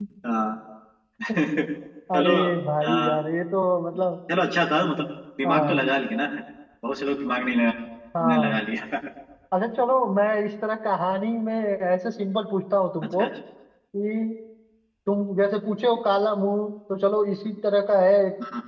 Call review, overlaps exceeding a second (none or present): none